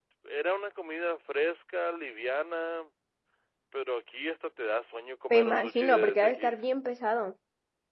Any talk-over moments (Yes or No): Yes